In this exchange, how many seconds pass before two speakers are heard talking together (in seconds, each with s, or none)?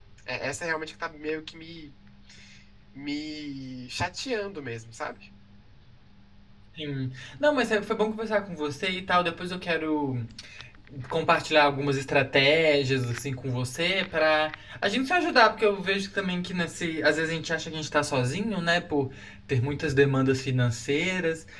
none